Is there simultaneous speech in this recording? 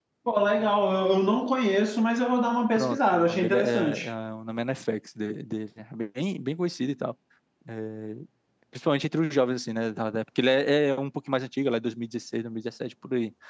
Yes, from 2.8 s

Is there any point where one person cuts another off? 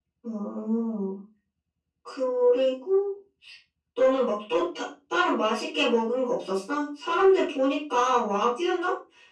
No

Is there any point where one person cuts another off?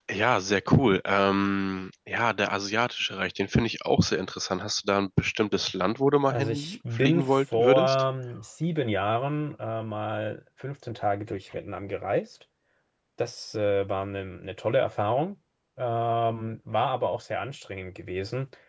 Yes, from 6.3 s

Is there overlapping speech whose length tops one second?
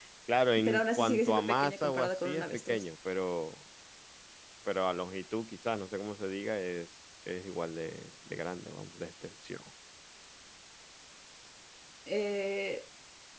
Yes, from 0.6 s

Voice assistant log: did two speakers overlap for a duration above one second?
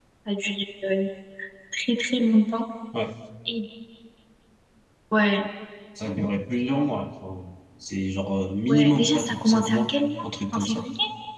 Yes, from 8.7 s

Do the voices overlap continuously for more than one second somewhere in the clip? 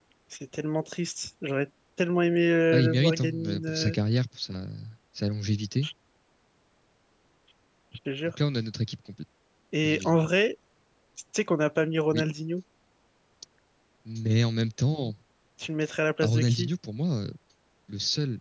Yes, from 2.7 s

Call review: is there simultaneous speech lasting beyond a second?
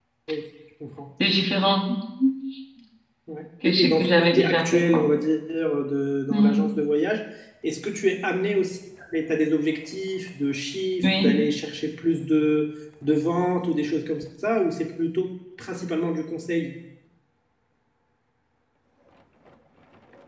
Yes, from 3.6 s

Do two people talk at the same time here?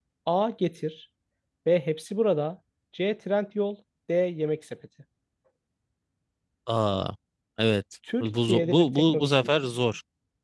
Yes, from 8.2 s

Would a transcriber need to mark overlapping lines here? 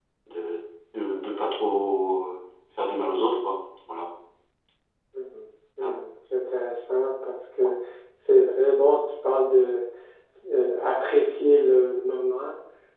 No

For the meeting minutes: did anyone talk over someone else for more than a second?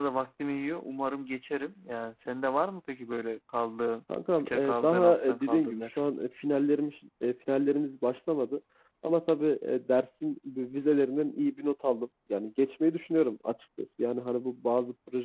Yes, from 4.4 s

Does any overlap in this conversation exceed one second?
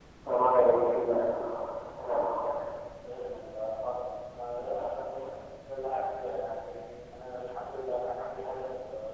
No

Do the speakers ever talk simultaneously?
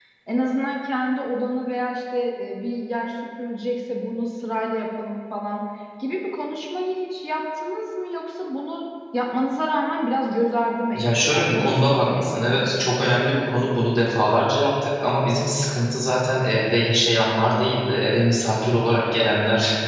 Yes, from 10.9 s

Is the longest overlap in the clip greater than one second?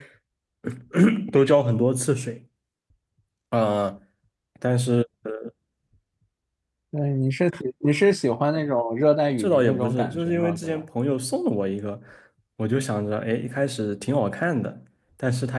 Yes, from 9.4 s

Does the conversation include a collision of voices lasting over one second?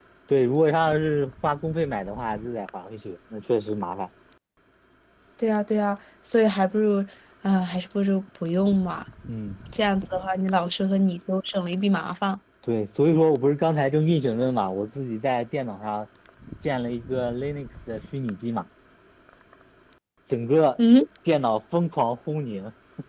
No

